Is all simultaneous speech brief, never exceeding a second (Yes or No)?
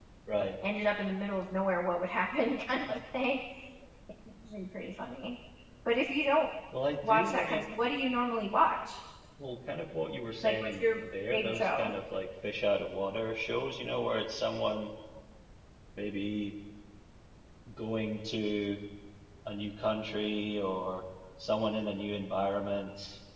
No